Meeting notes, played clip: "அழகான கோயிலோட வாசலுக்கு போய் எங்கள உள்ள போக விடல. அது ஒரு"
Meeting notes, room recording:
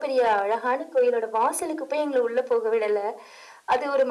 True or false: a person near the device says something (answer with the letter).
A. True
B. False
B